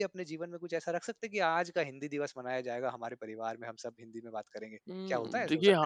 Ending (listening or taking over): taking over